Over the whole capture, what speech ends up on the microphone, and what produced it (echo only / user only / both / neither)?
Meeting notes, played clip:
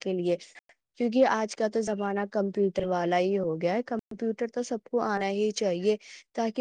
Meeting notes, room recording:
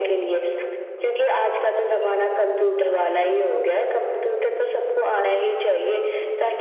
echo only